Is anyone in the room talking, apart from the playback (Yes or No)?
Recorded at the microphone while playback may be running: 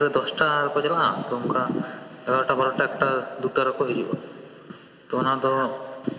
No